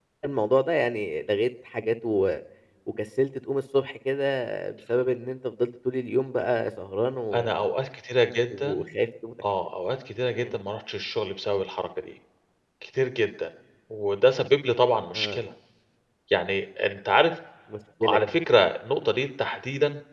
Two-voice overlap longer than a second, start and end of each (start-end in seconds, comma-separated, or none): none